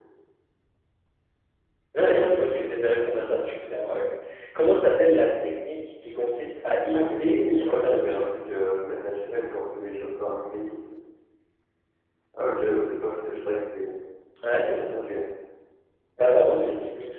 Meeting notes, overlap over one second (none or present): present